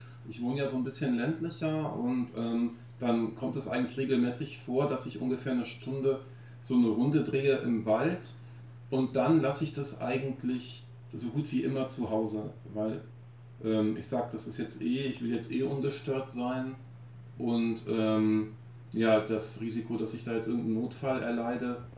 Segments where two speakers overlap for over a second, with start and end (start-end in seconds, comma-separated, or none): none